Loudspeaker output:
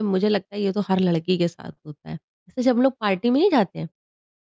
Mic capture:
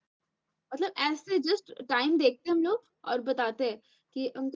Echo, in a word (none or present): none